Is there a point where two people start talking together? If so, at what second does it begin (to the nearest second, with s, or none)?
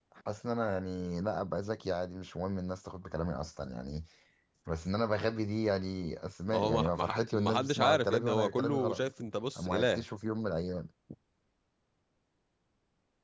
7 s